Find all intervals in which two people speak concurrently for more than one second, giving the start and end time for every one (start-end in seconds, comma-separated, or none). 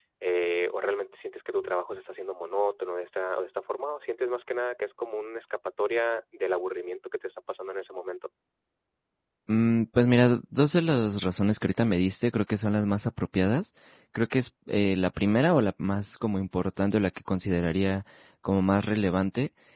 none